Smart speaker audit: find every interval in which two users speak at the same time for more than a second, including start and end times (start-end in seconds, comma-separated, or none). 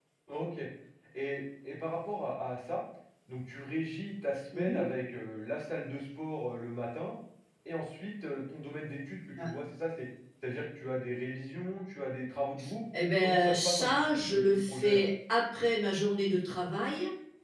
13.2-15.1